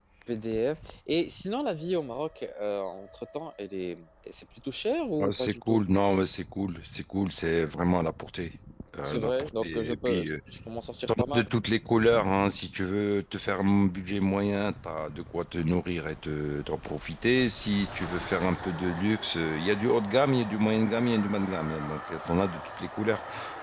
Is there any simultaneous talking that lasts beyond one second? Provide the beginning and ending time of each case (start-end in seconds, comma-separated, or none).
9.0-10.3